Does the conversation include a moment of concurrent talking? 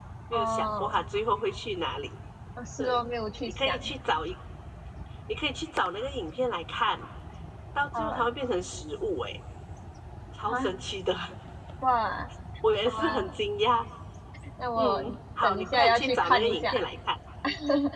Yes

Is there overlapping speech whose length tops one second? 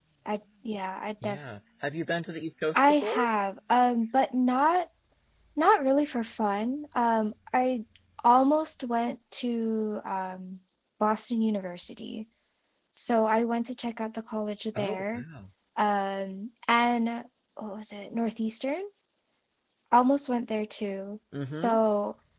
No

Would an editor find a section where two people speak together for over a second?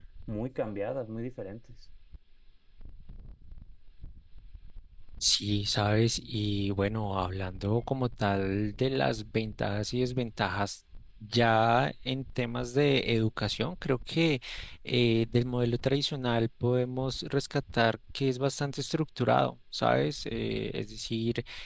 No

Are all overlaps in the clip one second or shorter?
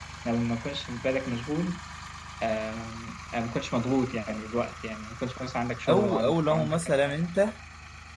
No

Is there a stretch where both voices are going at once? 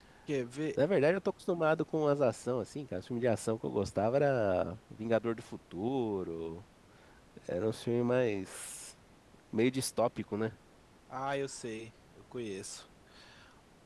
No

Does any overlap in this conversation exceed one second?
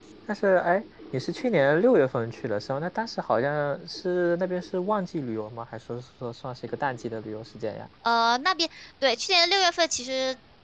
No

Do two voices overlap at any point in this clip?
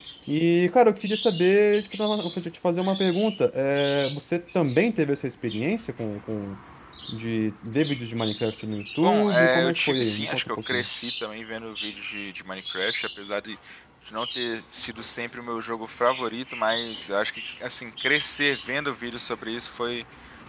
Yes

